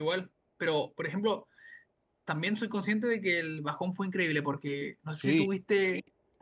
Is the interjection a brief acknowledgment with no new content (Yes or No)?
Yes